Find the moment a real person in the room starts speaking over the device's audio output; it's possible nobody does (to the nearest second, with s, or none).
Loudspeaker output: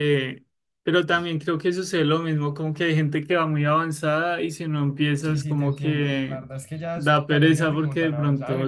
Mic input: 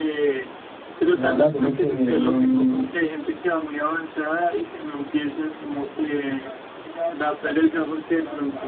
1 s